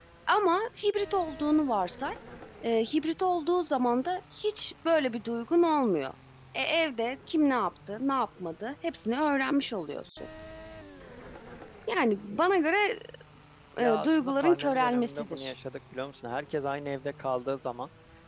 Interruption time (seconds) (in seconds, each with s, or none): 13.8 s